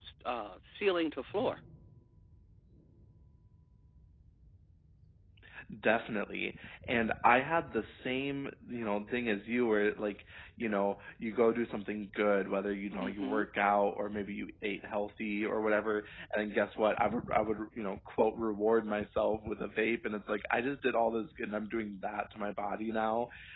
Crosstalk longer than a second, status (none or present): none